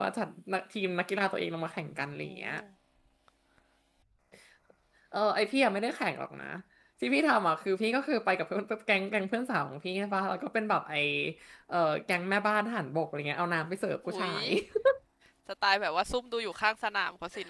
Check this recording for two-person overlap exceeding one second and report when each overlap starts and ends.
none

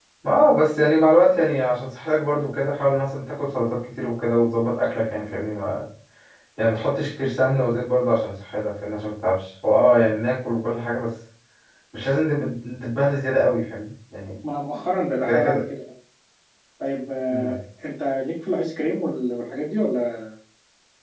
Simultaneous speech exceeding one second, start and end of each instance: none

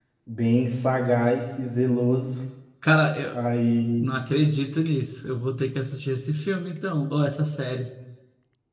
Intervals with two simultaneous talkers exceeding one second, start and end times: none

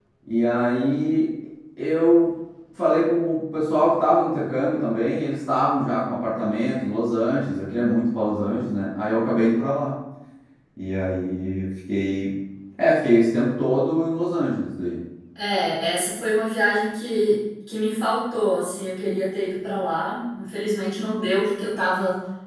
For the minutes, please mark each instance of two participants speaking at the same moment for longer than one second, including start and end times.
none

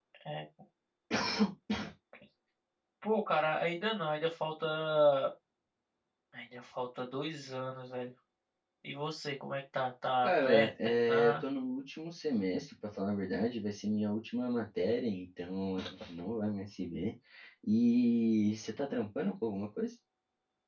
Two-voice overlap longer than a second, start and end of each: 10.2-11.4

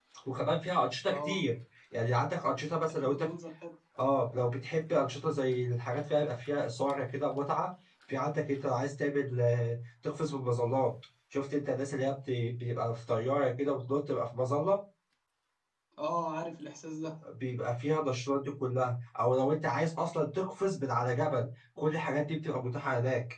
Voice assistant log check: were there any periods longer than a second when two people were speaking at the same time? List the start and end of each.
none

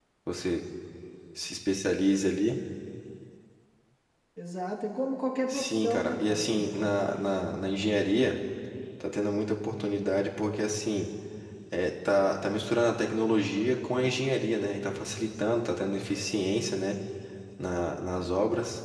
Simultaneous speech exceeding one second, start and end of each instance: 5.5-7.6

